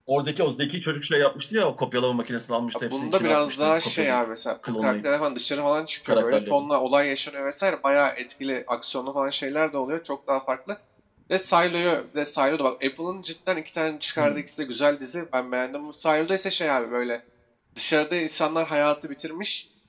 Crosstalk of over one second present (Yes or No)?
Yes